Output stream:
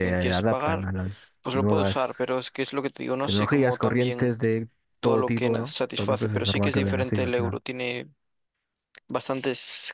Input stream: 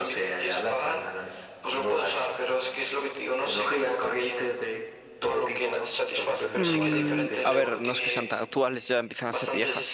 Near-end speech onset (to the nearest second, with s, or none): 7 s